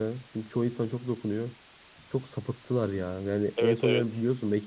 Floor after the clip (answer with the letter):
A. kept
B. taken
A